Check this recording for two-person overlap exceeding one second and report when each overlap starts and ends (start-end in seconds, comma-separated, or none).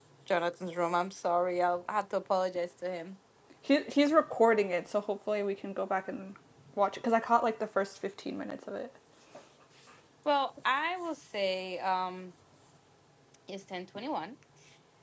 none